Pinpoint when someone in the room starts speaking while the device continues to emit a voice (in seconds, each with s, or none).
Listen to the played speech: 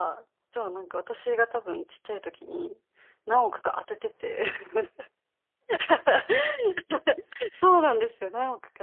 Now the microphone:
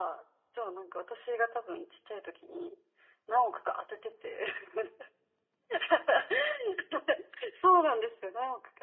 none